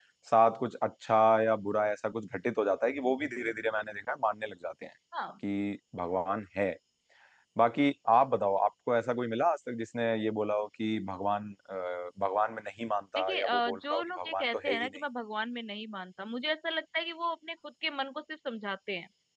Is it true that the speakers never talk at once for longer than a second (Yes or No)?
No